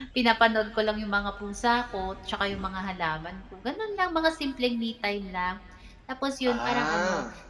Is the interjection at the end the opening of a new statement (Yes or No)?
No